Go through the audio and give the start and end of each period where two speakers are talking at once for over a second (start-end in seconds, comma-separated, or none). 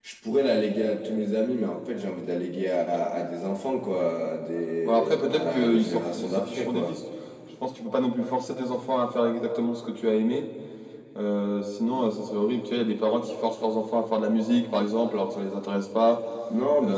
4.8-7.0